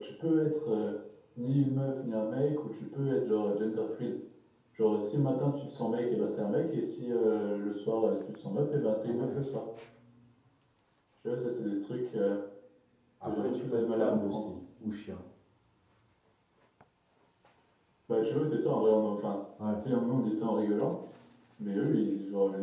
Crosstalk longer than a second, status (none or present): present